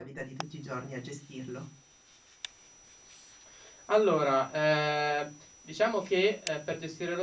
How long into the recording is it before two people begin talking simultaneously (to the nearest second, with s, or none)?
none